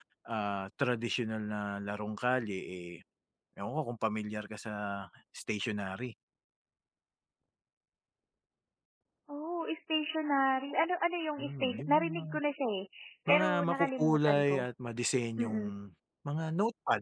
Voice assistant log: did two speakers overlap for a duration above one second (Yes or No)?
Yes